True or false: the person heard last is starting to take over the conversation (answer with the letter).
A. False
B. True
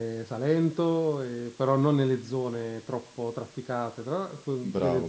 B